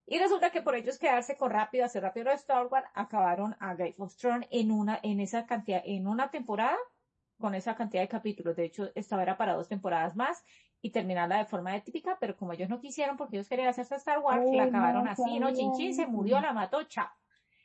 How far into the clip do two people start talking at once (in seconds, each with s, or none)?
14.3 s